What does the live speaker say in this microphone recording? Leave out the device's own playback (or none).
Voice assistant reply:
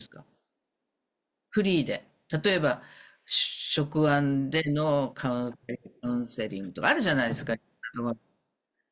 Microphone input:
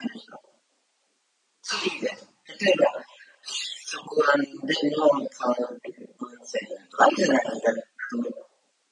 そう。